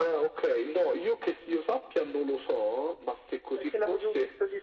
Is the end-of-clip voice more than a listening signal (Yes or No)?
Yes